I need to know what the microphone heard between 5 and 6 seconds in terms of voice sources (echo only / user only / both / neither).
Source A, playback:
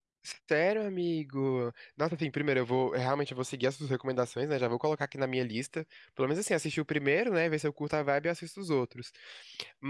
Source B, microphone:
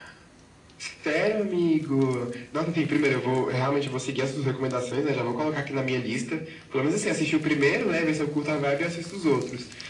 echo only